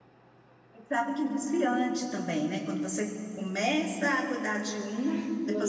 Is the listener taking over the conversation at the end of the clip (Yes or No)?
Yes